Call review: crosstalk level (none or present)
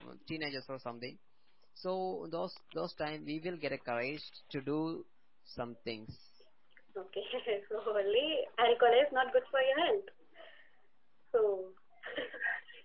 none